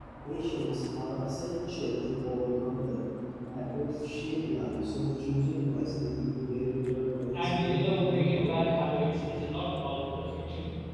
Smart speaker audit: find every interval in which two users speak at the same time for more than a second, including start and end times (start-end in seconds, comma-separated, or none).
7.3-8.6